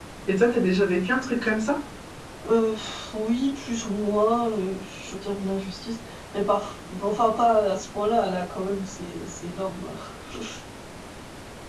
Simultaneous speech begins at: none

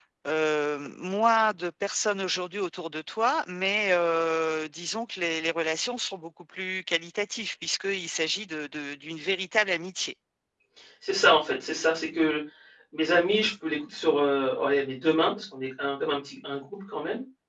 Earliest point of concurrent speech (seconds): none

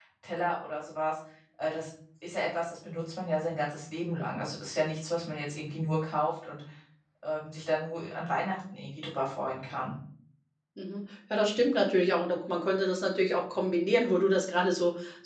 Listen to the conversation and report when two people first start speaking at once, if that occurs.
none

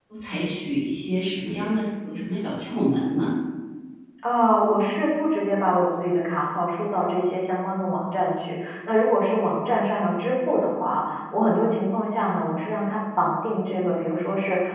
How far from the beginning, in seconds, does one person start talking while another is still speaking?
none

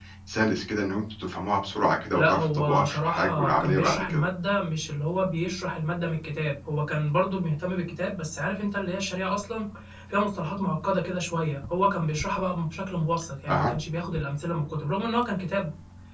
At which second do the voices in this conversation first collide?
2.1 s

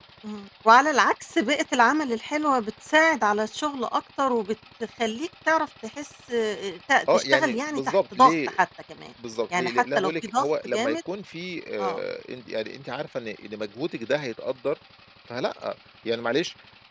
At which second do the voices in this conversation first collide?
7.1 s

